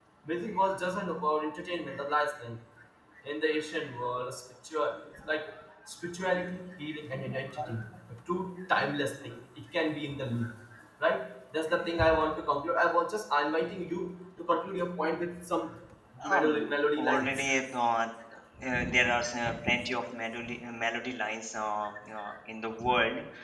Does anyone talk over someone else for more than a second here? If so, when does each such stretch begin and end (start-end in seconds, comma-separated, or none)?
16.2-17.5